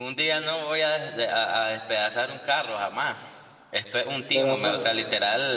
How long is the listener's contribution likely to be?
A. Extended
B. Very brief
B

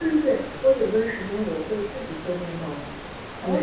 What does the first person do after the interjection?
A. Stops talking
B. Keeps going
A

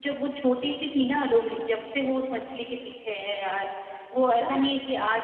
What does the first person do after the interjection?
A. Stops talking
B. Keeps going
B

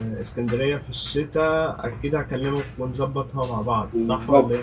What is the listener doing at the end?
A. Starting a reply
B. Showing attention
A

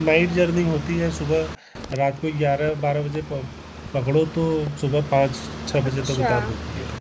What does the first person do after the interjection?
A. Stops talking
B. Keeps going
B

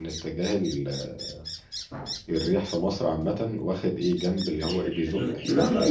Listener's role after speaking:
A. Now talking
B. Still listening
A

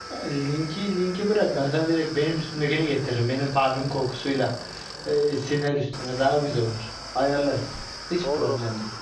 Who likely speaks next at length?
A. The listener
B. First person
A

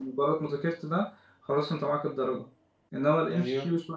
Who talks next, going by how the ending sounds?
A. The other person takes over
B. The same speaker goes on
B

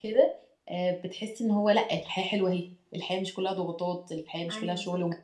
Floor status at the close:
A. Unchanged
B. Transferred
B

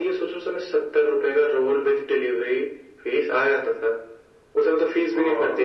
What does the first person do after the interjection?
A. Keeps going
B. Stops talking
B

